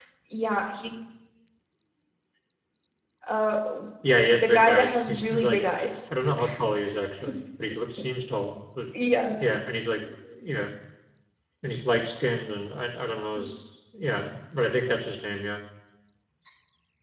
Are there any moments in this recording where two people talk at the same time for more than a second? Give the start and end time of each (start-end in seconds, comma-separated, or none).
4.3-5.9